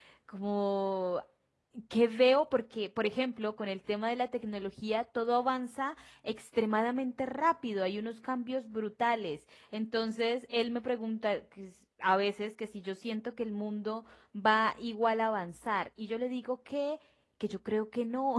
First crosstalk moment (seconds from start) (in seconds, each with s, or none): none